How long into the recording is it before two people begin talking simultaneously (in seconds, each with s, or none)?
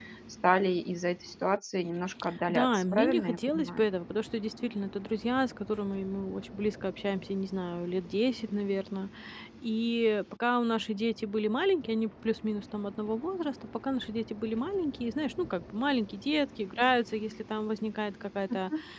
2.5 s